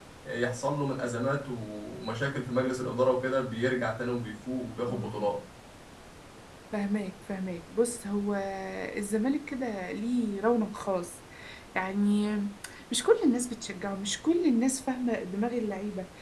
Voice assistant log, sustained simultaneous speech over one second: none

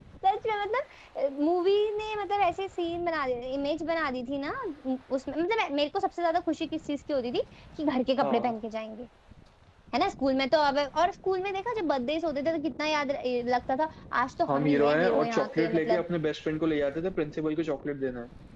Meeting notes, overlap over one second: present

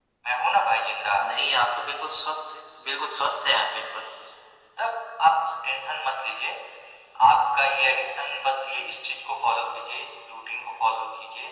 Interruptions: none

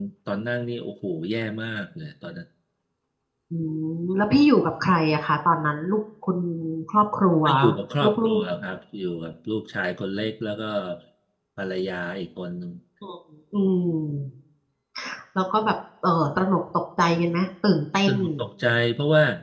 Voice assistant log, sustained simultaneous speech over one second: none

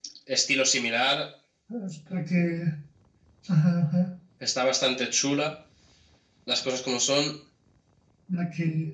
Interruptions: none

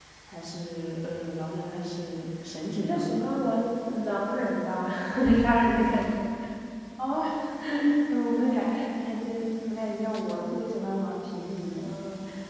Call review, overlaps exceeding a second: none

